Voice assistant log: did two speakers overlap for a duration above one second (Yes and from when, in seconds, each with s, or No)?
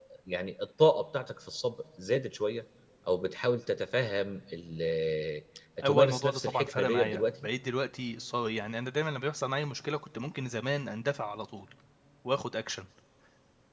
Yes, from 5.8 s